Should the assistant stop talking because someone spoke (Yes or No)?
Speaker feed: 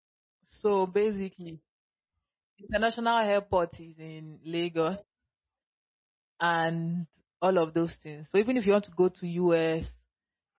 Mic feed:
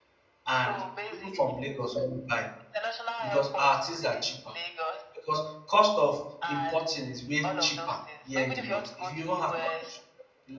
Yes